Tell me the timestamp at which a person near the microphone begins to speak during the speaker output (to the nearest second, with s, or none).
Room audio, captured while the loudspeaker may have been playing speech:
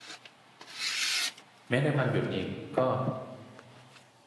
2 s